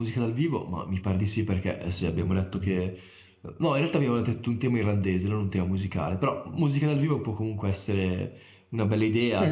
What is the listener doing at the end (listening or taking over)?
taking over